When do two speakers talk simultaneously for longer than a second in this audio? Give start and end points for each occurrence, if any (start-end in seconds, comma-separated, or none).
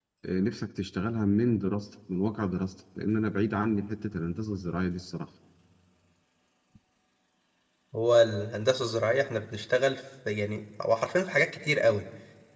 none